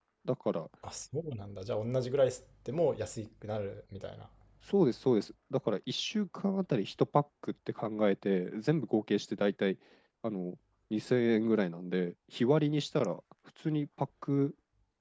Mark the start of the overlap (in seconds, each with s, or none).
none